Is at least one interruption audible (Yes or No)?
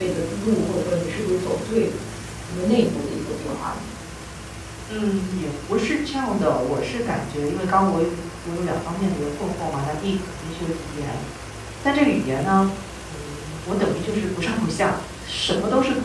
No